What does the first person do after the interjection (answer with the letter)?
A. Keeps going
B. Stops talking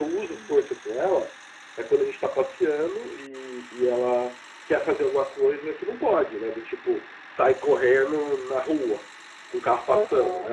A